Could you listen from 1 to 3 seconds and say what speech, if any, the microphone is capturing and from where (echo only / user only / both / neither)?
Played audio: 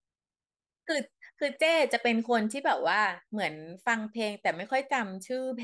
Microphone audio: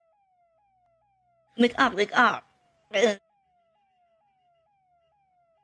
user only